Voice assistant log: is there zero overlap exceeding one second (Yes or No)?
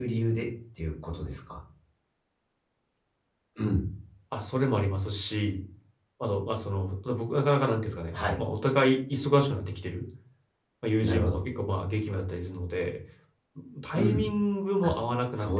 Yes